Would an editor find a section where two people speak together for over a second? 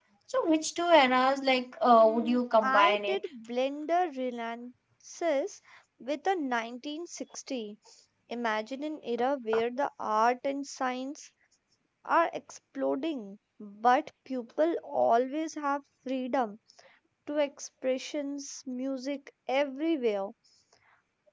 Yes, from 2.0 s

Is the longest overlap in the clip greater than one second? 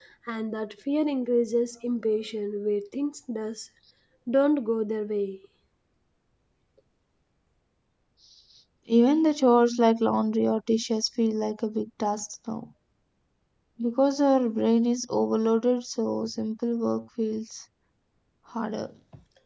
No

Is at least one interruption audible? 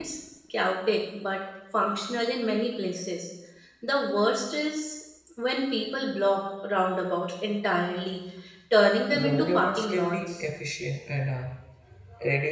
Yes, from 9.1 s

